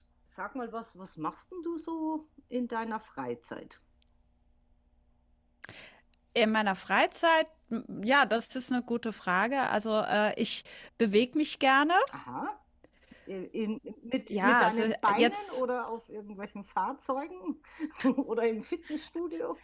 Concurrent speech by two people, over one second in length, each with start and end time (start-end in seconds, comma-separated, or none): 14.3-15.6